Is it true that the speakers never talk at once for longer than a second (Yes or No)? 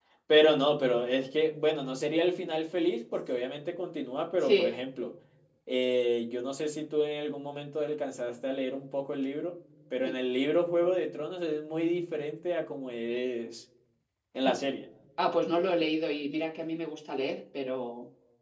Yes